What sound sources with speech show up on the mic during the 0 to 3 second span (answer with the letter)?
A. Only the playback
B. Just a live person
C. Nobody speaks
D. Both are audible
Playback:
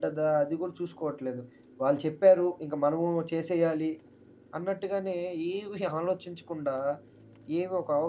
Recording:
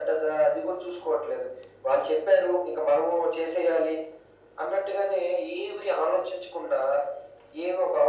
A